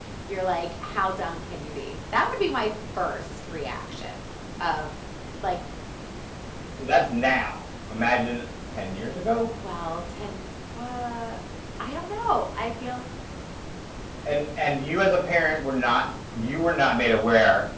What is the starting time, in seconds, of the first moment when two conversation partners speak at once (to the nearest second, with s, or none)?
none